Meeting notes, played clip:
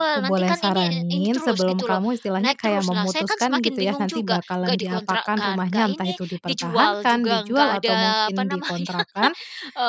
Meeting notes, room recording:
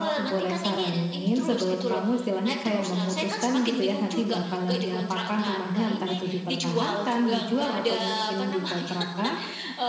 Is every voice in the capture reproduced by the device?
Yes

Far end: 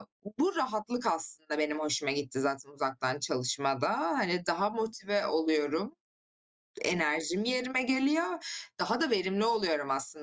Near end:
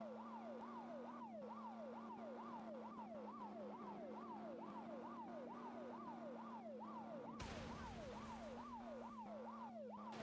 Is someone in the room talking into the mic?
No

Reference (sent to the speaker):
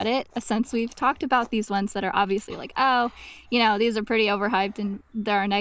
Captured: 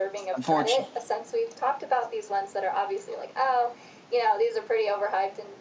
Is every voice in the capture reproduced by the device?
No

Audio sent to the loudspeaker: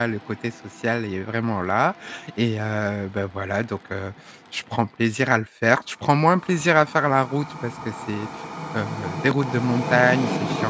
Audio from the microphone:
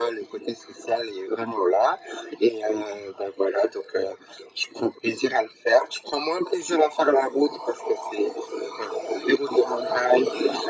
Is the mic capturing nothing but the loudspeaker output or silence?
Yes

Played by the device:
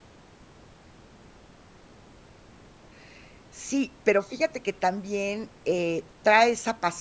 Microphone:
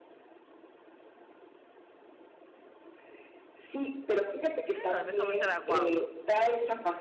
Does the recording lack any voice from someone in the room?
No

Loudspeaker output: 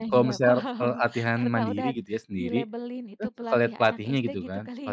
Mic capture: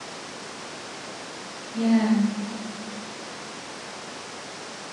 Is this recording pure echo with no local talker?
No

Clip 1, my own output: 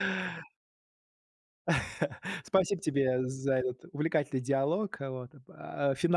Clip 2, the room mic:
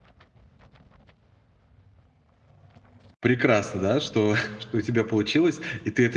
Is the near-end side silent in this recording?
No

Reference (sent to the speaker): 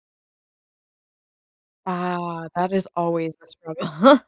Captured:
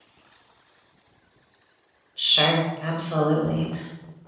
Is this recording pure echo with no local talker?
No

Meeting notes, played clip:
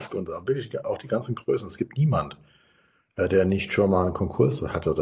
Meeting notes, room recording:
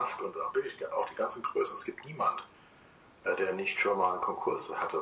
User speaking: No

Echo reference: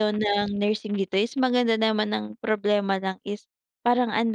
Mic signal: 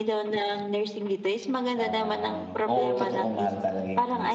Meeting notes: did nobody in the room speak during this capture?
No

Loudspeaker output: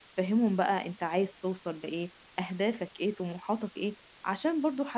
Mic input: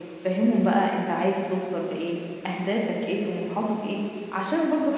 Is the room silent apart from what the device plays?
Yes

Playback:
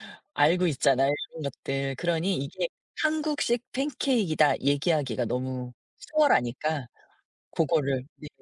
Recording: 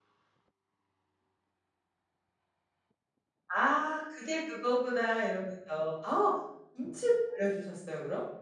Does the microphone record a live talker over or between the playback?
Yes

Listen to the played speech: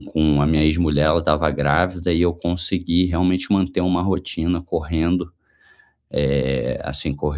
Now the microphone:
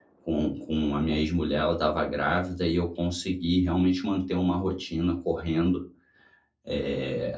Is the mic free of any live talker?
Yes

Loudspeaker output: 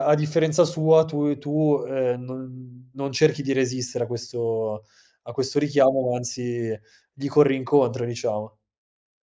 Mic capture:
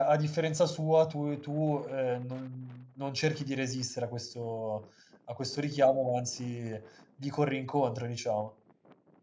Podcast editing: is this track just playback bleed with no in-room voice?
Yes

